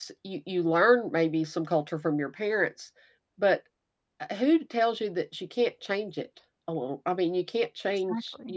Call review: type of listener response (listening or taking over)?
taking over